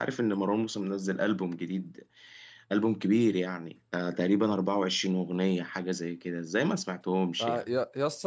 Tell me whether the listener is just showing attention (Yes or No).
No